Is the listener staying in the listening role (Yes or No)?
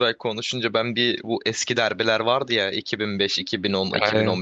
Yes